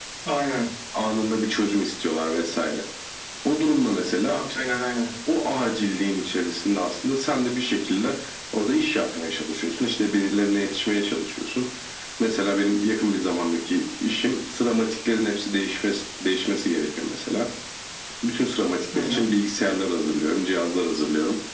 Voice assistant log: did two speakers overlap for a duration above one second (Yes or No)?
No